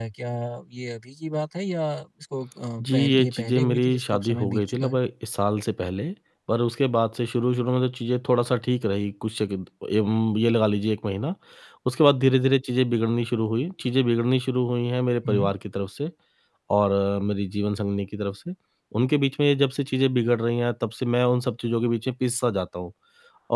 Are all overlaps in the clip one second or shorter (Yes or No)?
No